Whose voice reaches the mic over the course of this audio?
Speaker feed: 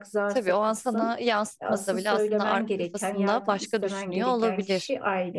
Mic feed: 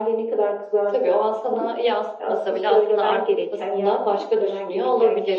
echo only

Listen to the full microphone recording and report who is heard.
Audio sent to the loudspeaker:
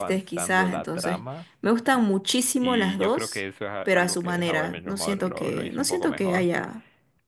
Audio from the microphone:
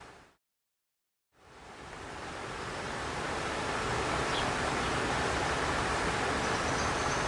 neither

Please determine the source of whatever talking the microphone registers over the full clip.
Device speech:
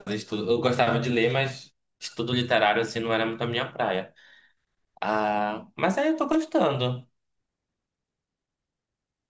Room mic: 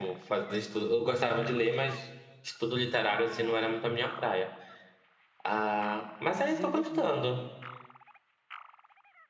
both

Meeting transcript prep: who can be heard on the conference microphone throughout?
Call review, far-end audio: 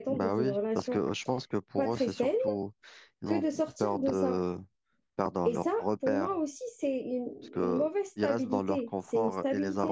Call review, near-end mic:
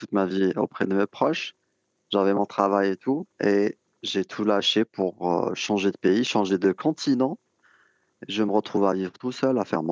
user only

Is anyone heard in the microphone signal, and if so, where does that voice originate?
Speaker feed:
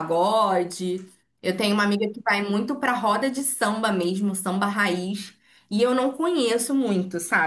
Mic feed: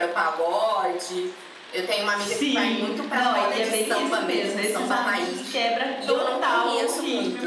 both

